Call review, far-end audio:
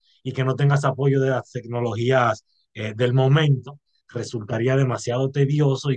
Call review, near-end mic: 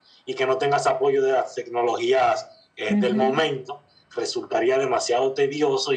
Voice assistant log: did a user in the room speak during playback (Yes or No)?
Yes